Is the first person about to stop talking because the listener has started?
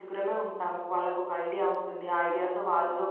No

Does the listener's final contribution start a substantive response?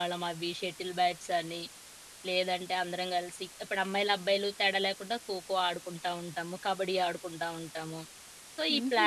Yes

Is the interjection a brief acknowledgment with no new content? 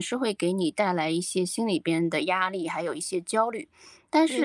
Yes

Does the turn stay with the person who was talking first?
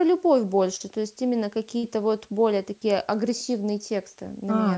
No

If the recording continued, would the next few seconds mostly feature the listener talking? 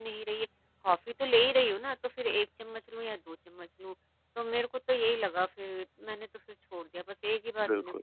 Yes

